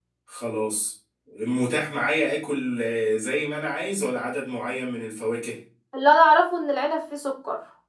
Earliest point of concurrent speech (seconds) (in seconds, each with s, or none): none